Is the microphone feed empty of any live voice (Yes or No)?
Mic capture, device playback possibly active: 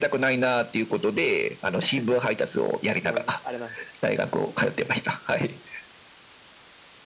No